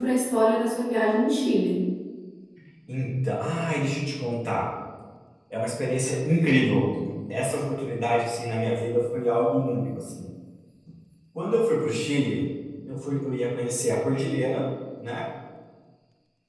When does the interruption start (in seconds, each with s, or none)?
none